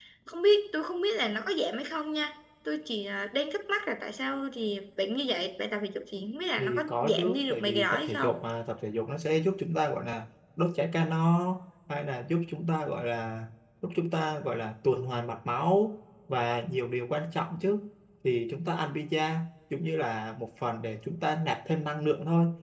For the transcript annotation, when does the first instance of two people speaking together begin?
6.6 s

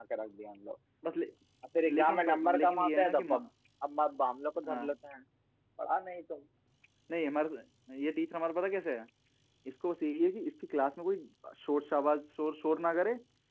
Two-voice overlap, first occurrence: 2.0 s

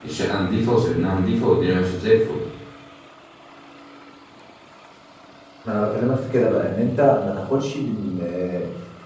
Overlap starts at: none

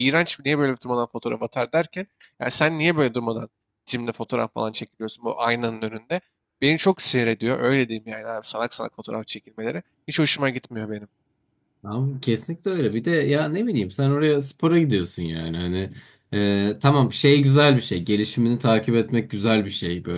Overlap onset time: none

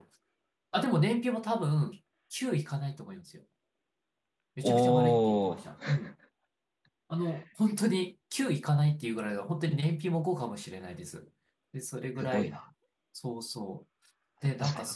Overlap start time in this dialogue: 4.6 s

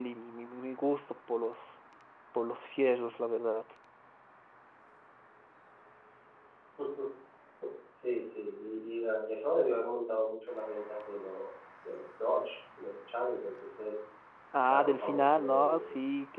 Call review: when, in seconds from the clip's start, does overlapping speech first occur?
14.7 s

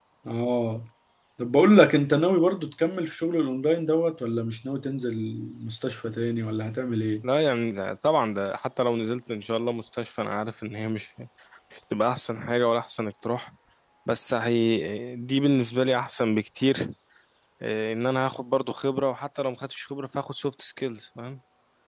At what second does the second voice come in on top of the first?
none

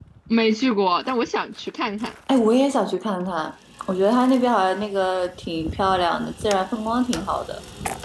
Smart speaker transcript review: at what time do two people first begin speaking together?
none

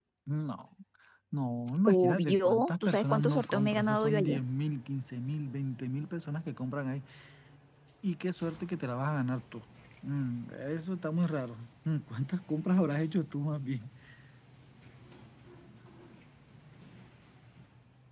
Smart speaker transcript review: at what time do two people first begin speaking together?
1.9 s

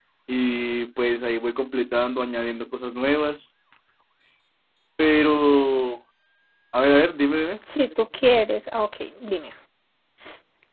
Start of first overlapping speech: none

